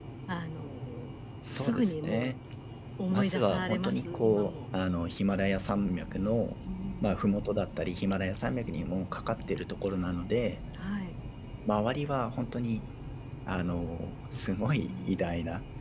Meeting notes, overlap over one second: present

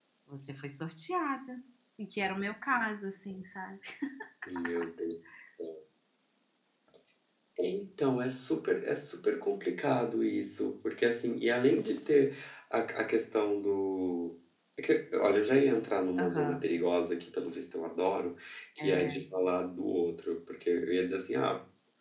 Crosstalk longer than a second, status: none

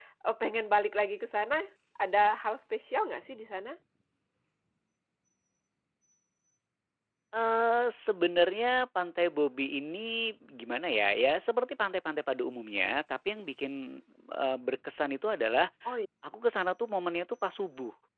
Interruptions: none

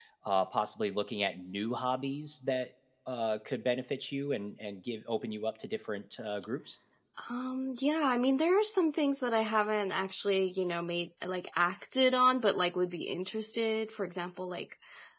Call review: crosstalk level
none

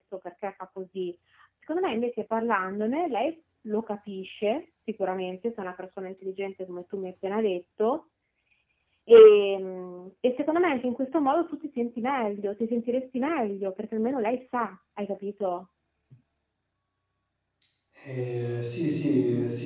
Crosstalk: none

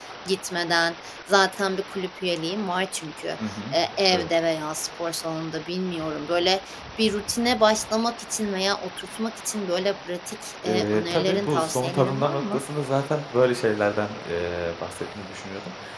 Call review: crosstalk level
present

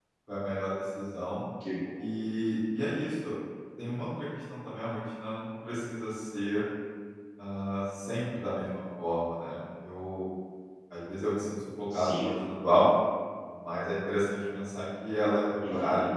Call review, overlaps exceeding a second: none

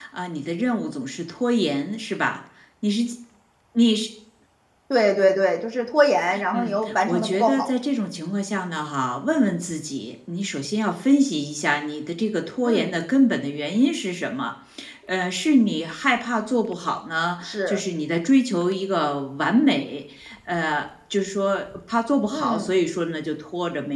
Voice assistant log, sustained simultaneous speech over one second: present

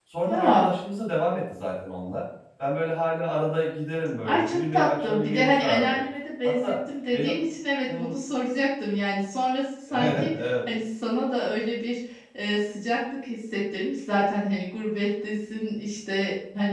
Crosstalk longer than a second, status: present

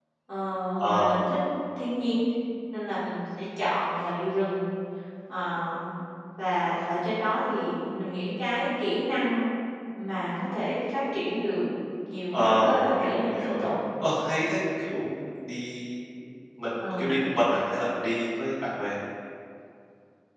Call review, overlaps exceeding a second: present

